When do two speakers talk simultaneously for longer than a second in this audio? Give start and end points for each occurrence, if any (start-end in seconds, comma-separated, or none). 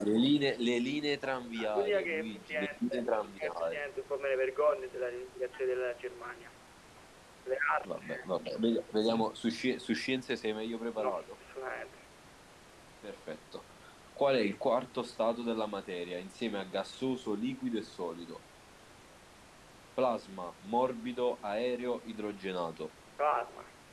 1.7-3.8